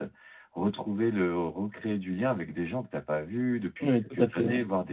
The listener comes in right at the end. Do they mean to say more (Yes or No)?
Yes